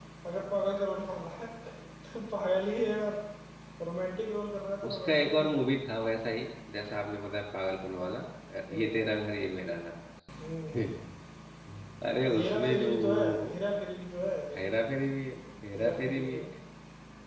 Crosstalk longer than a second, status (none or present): present